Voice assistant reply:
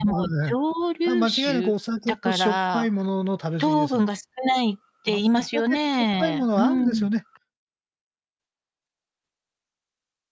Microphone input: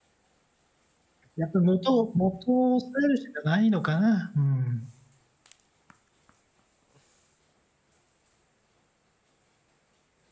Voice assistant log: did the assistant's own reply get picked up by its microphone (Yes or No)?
No